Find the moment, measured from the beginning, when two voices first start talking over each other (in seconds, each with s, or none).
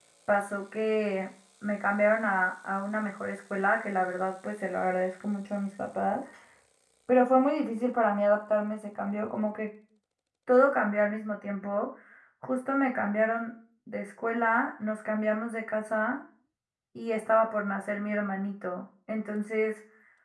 none